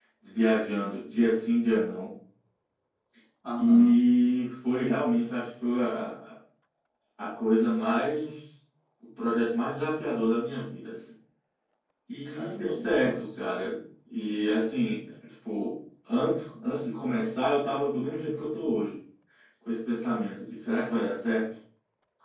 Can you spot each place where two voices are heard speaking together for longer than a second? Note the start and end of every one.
12.2-13.5

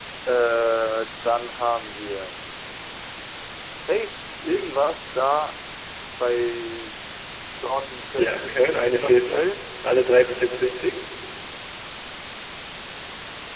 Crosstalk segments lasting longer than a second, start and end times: 8.2-9.5

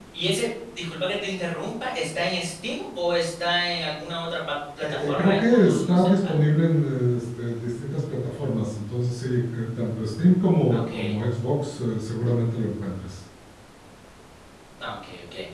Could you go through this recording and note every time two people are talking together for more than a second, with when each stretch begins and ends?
5.0-6.5

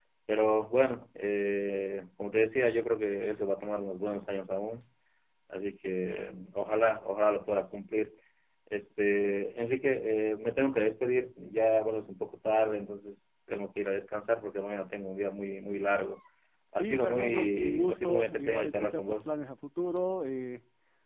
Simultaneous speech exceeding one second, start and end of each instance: 16.8-19.3

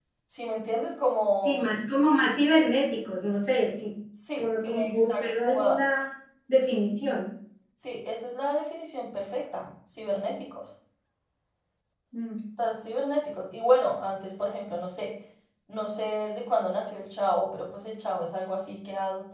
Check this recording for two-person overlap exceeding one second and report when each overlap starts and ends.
4.4-5.8

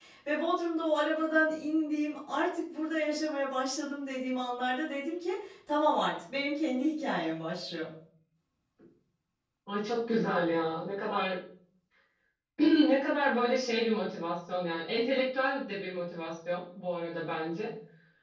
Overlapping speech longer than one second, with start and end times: none

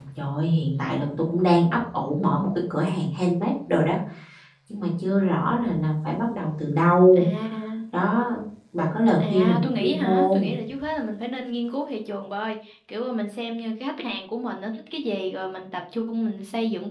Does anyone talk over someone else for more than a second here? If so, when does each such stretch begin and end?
9.2-10.6

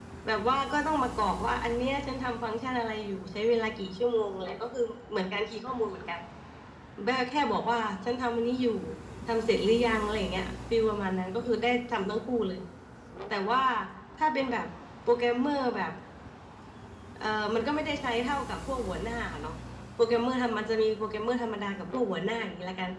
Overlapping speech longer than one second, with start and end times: none

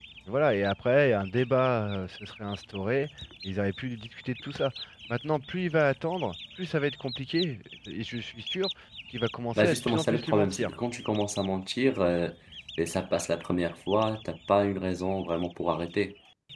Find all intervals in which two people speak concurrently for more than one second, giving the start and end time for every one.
9.5-10.8

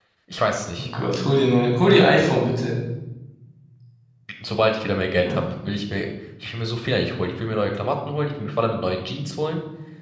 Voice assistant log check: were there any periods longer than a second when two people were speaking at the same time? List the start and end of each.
none

